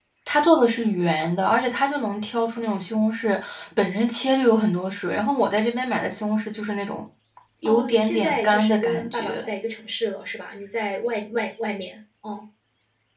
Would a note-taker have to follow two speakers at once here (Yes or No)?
Yes